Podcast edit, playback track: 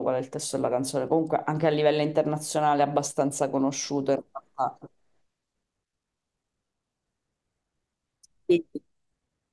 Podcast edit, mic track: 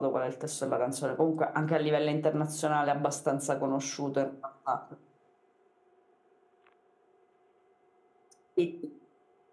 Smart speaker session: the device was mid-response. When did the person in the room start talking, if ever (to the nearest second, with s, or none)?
none